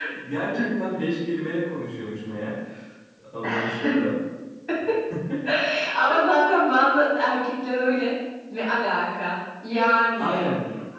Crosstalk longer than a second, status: none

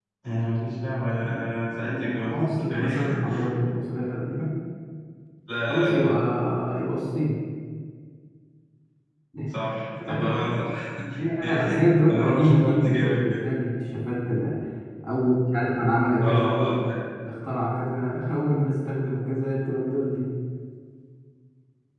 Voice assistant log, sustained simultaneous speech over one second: present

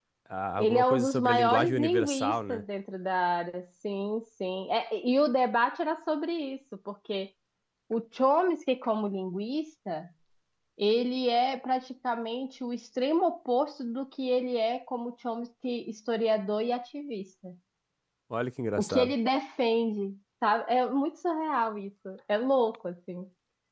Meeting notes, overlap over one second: present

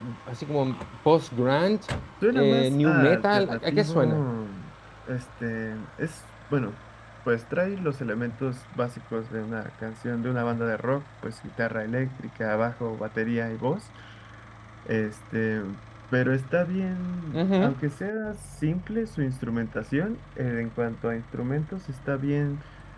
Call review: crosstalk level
present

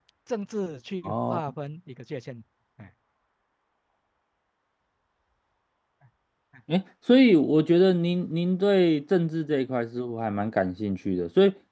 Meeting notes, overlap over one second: none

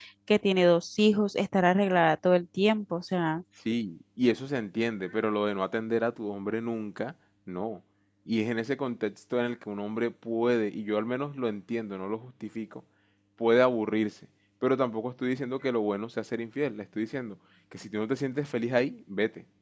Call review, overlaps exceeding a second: none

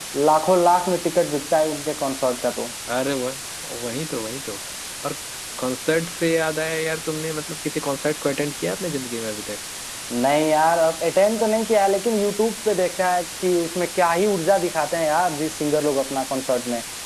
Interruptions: none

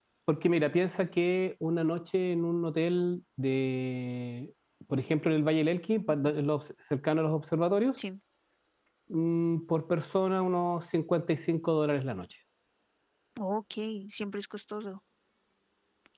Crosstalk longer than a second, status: none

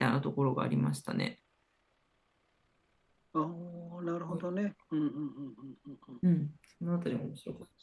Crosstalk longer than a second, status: none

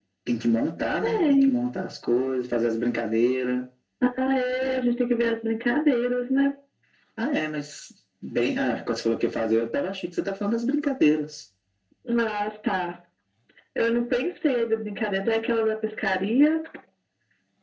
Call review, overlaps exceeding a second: none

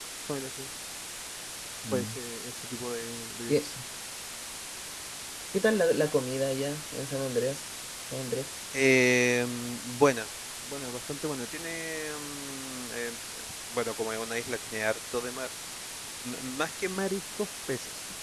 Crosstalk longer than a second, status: none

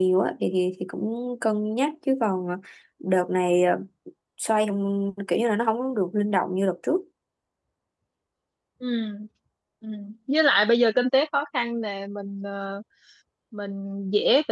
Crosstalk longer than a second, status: none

